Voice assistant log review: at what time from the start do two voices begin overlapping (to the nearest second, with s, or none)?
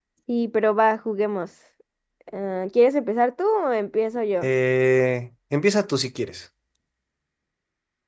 none